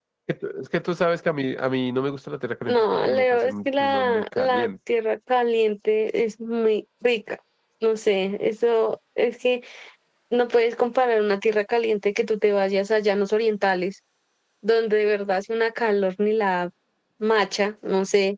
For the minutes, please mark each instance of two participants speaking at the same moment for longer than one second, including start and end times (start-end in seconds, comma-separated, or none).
2.7-4.7